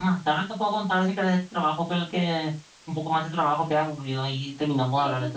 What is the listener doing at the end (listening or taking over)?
taking over